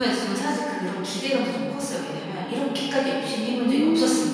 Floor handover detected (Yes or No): Yes